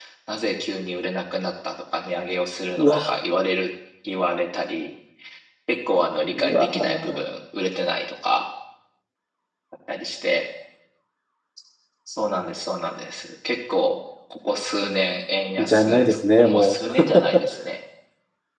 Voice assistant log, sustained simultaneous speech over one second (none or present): present